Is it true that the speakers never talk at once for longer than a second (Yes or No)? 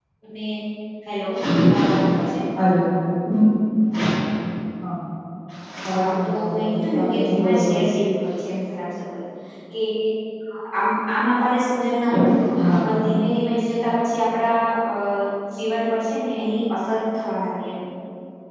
No